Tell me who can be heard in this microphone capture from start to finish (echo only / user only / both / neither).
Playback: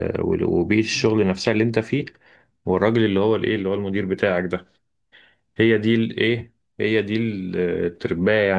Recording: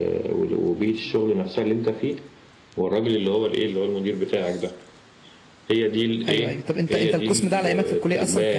both